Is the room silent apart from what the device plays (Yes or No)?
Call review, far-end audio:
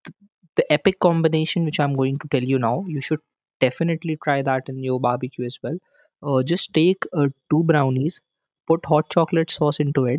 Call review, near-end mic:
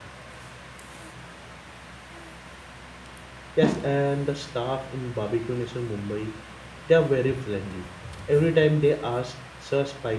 No